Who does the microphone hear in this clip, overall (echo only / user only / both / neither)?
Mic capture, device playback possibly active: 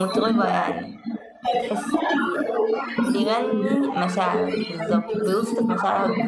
both